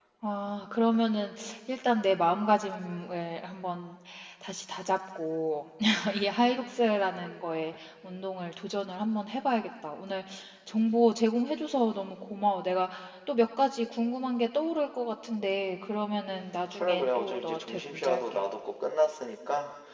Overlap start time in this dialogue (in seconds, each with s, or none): 16.8 s